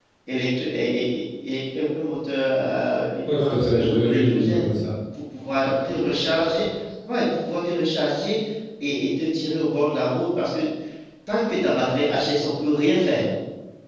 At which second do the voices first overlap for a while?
3.3 s

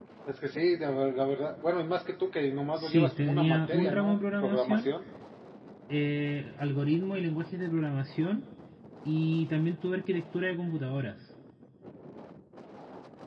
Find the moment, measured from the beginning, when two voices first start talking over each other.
2.8 s

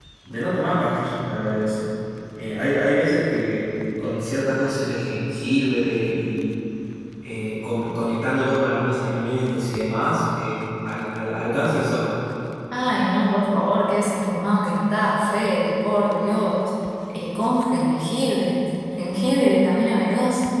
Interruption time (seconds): none

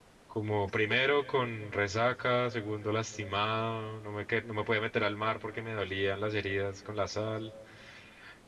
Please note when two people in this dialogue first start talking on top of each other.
none

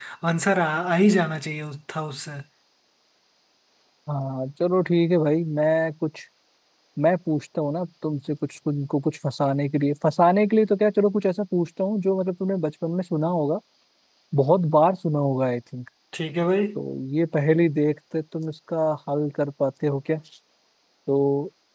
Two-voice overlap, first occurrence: none

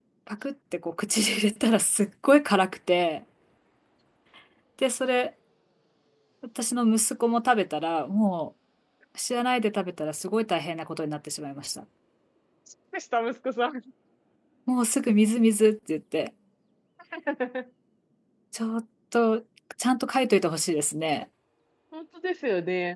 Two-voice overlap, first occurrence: none

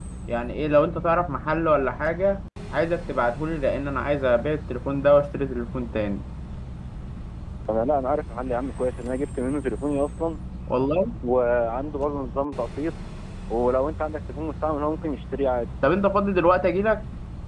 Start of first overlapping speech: none

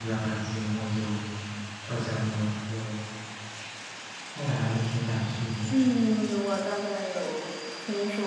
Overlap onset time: none

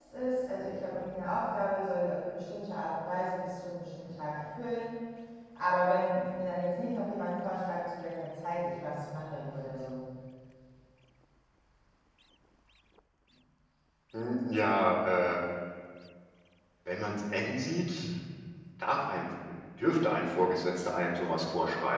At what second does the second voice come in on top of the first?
none

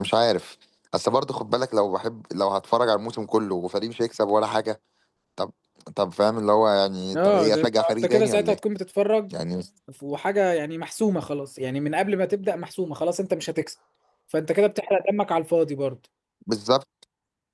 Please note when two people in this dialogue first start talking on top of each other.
7.1 s

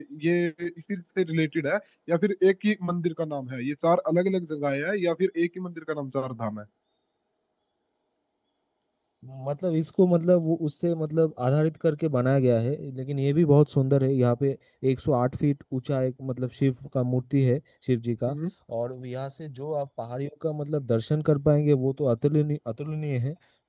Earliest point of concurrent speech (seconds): none

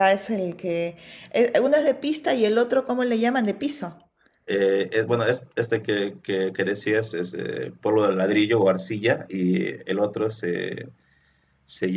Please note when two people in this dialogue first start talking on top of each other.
none

